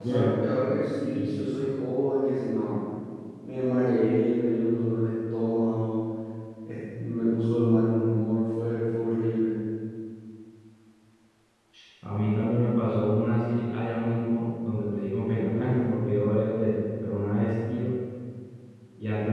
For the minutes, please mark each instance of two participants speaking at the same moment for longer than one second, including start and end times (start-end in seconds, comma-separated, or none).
none